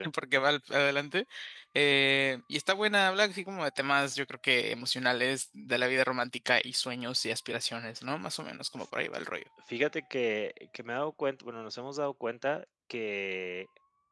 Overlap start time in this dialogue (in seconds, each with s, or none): none